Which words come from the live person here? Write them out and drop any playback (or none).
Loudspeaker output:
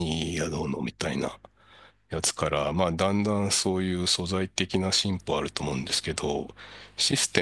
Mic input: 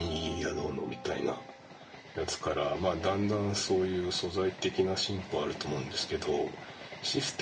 none